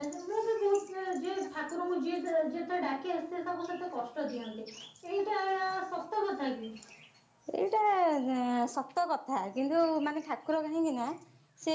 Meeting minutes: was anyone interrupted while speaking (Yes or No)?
No